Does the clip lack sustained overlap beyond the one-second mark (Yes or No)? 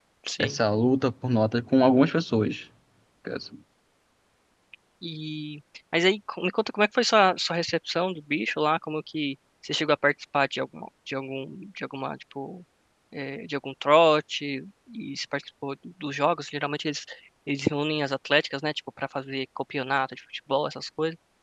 Yes